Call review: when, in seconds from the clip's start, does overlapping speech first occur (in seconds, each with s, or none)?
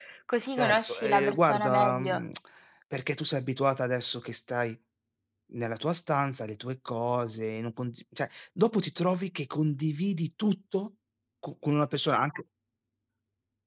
0.6 s